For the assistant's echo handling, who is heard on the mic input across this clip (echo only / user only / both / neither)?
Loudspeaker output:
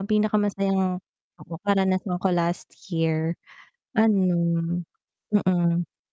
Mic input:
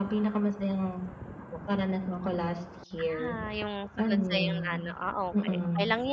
both